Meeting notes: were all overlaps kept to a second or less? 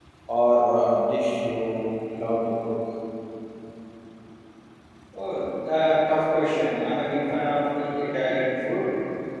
Yes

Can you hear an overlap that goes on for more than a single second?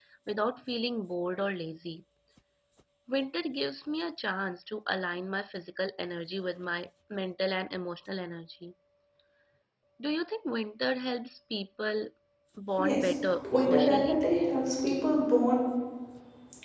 Yes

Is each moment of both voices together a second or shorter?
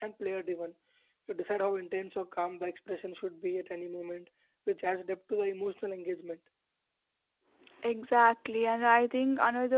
Yes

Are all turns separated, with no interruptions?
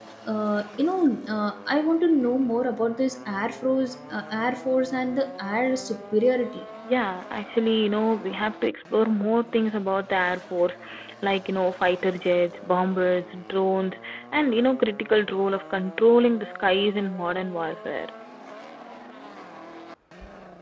Yes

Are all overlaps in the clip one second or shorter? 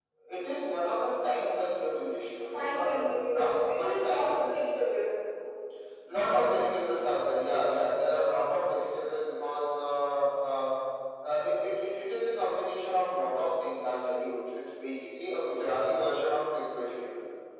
No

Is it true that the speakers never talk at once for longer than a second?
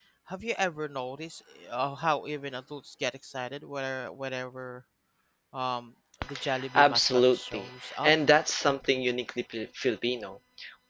No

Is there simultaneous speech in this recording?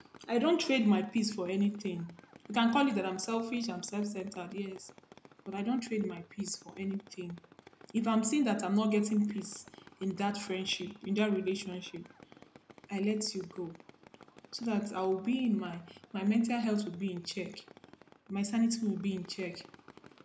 No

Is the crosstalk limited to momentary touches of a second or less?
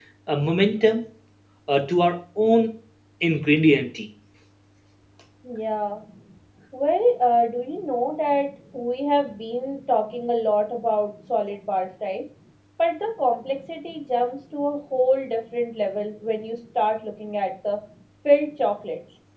Yes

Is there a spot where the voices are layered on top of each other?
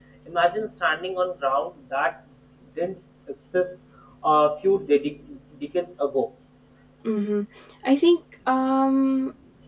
No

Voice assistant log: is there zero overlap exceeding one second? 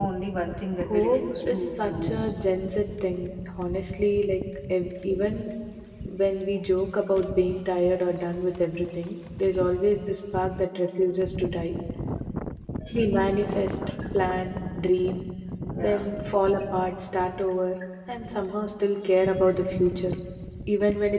No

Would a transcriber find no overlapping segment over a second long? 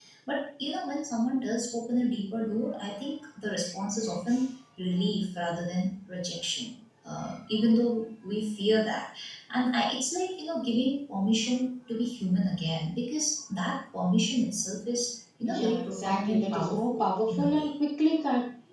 No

